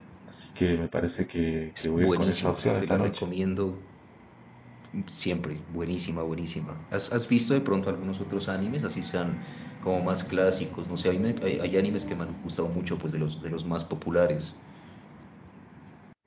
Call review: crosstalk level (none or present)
present